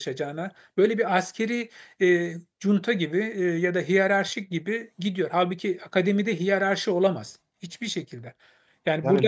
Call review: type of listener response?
listening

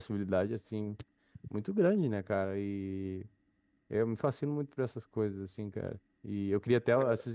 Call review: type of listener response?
listening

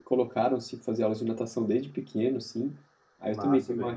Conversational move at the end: listening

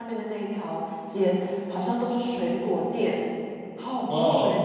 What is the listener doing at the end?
taking over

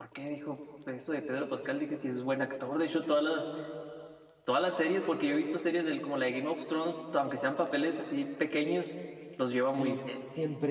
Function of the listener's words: taking over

